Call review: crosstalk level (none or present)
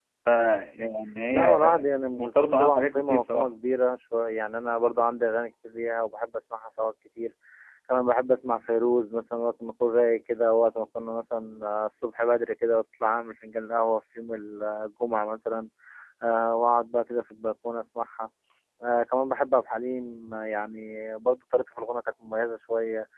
present